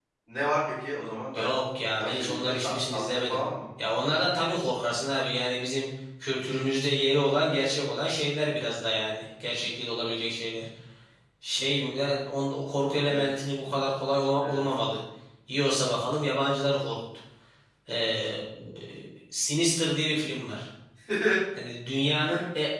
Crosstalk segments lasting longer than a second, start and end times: 2.0-3.4

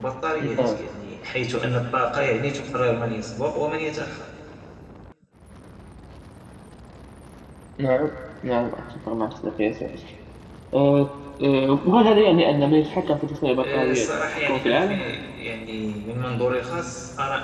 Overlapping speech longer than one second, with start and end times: 13.5-15.0

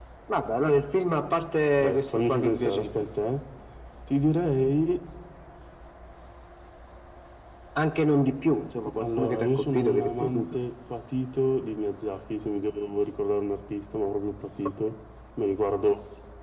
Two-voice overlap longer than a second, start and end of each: 1.8-3.1, 9.0-10.6

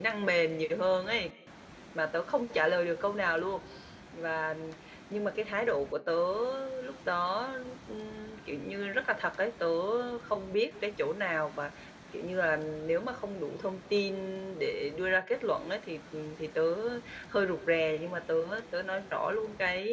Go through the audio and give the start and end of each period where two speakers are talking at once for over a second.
none

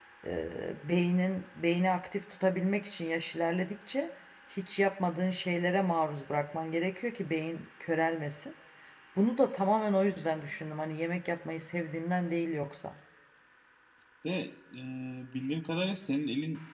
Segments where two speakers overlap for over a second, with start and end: none

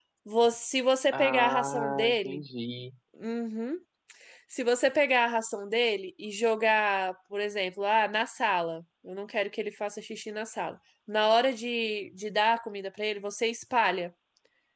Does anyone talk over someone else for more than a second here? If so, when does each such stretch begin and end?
1.1-2.4

